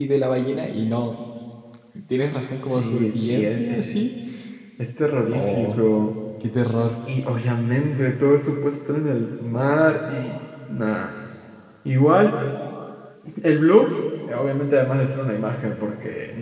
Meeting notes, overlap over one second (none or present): present